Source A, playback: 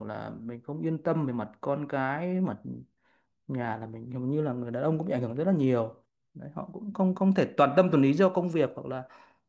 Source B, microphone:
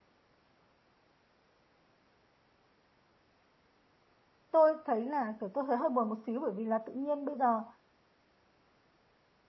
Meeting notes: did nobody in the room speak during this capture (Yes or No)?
No